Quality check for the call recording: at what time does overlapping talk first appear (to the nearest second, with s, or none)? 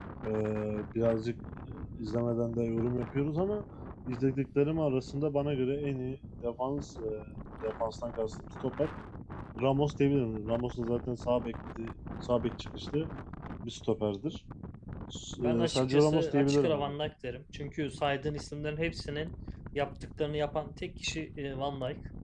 15 s